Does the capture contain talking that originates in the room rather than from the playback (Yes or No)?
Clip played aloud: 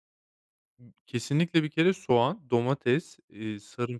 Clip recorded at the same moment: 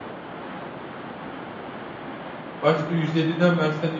Yes